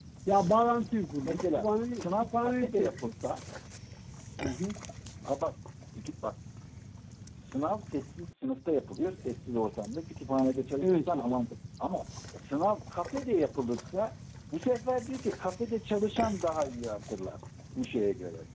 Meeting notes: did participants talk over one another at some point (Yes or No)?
Yes